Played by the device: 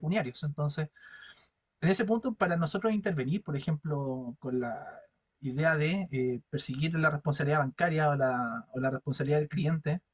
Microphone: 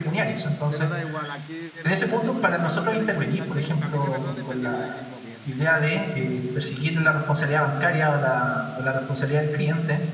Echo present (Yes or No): Yes